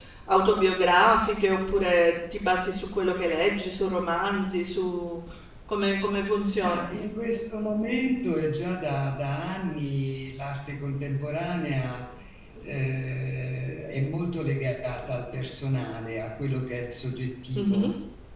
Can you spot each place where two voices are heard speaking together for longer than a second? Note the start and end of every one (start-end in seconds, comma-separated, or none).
none